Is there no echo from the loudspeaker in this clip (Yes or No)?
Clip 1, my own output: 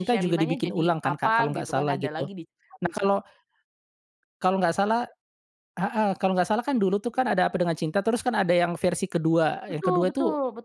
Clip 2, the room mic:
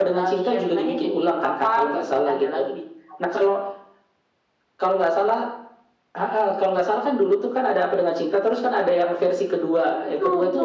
No